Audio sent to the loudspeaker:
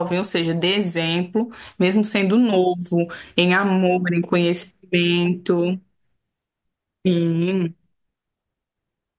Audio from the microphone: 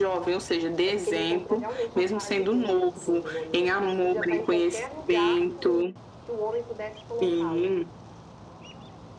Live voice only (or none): é porque ele encontrou realmente a paz de Deus dentro dele, né, amiga? Porque ele podia estar em qualquer lugar que o, que o homem pudesse colocá-lo,